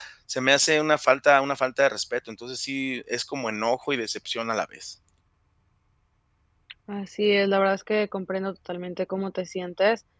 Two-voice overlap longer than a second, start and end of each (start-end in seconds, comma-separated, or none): none